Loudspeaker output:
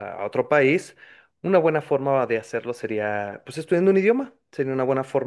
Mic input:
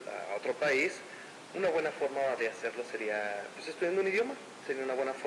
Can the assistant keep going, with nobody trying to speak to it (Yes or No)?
Yes